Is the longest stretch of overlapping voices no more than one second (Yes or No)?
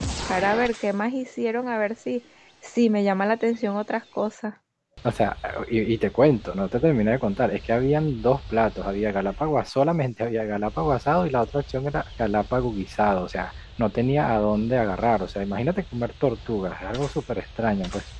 Yes